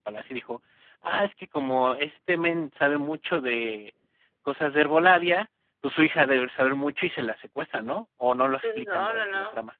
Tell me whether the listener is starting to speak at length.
Yes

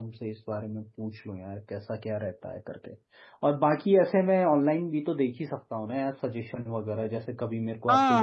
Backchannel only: No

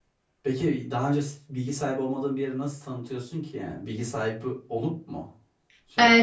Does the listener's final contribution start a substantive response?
Yes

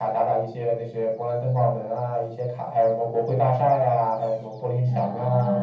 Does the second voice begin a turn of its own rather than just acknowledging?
Yes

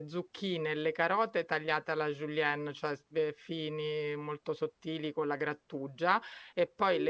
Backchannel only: Yes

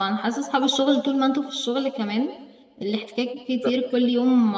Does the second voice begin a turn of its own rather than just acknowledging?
No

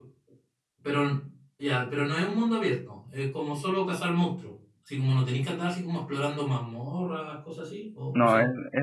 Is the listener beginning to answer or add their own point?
Yes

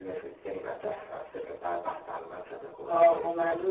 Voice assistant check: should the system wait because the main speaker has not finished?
No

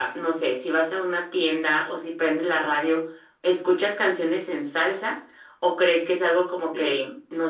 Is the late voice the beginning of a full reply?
No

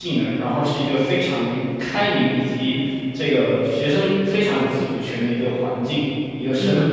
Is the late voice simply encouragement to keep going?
No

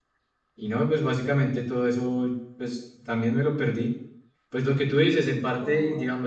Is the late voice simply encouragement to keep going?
Yes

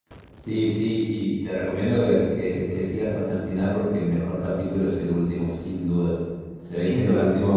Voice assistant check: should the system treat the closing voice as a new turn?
No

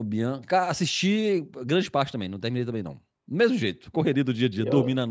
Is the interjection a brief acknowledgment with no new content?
No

